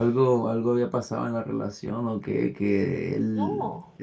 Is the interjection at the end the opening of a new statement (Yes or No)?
No